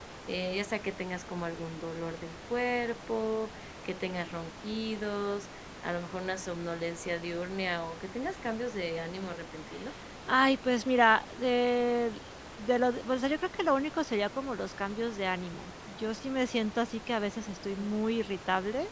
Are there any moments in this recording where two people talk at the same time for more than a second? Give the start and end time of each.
none

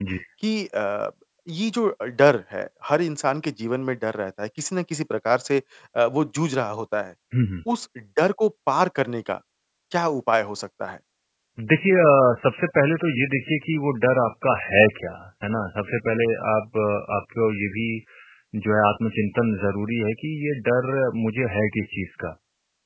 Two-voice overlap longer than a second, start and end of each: none

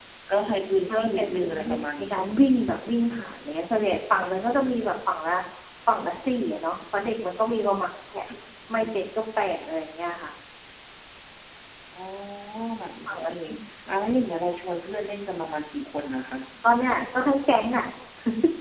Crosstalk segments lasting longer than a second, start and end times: 0.9-2.2

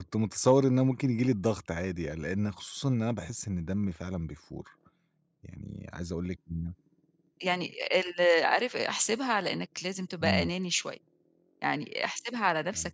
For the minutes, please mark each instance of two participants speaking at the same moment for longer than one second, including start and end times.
none

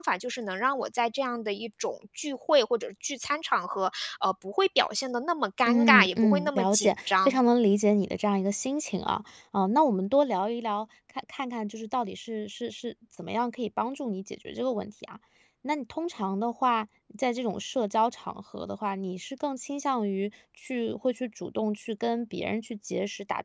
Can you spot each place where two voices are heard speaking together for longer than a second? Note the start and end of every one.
5.7-7.4

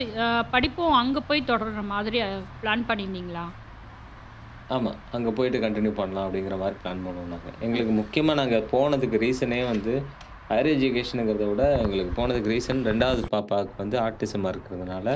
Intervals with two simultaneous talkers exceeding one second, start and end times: none

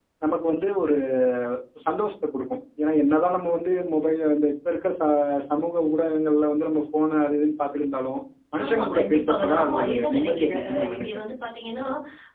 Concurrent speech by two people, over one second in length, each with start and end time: 8.6-11.2

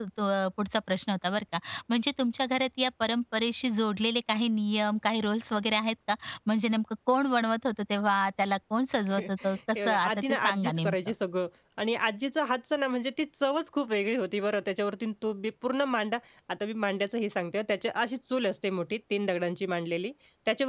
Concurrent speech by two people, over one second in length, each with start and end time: 9.8-11.0

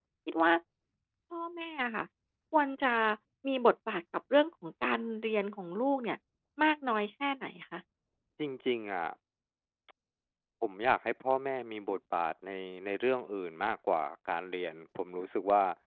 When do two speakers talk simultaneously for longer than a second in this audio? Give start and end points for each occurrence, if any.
none

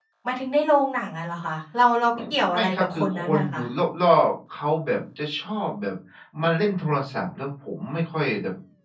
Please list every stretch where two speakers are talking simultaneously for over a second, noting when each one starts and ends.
2.2-3.6

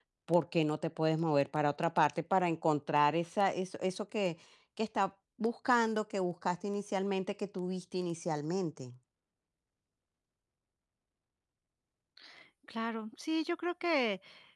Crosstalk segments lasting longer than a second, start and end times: none

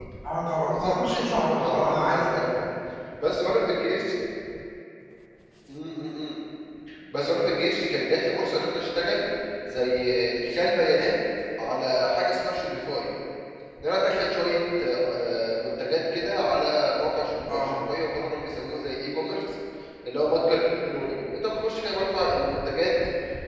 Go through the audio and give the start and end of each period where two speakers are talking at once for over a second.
0.8-2.2

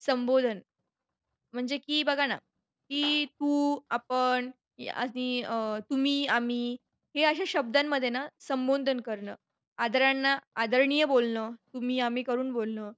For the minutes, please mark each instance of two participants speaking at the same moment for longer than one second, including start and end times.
none

